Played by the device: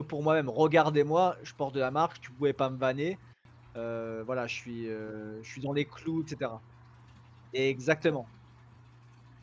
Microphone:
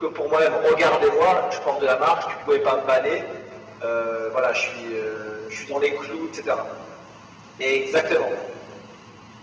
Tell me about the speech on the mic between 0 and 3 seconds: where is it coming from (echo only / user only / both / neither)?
echo only